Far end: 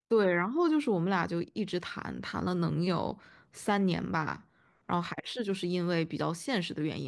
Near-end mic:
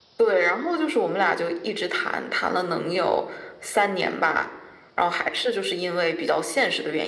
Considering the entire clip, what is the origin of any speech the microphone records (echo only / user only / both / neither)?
echo only